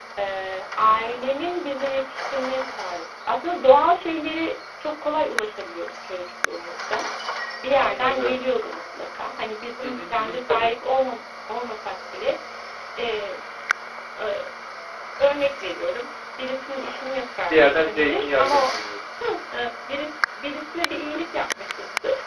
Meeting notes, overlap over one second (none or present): present